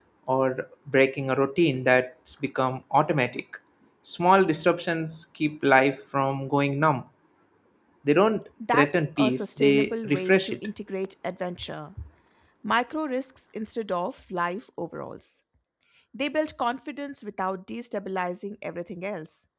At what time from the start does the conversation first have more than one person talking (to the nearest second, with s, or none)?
9 s